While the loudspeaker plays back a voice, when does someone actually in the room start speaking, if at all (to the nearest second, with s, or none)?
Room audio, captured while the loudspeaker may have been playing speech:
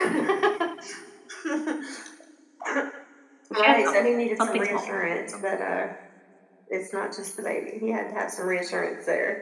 3 s